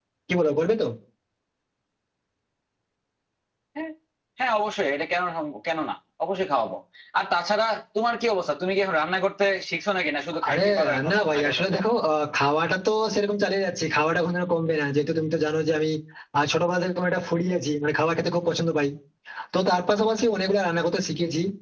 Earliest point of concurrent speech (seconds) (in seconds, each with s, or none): 10.4 s